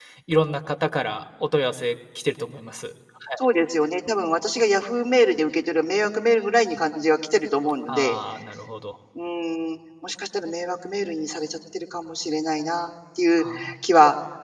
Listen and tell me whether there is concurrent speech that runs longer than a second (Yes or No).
No